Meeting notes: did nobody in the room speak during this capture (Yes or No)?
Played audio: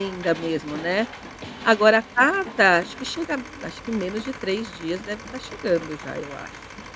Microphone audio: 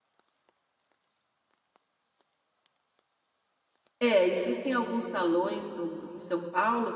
No